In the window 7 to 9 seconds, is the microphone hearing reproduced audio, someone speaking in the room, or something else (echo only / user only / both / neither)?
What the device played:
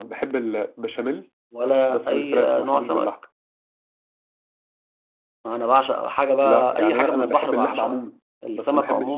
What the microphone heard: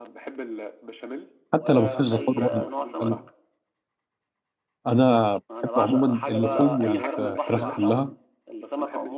both